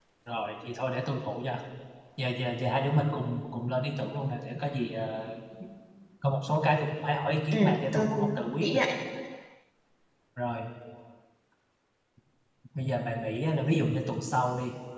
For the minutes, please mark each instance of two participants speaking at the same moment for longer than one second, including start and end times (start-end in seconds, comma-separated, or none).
7.5-8.8